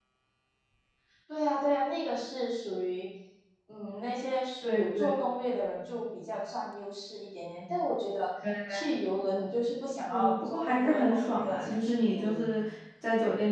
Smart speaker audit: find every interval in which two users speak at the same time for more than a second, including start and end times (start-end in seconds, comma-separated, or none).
10.1-12.5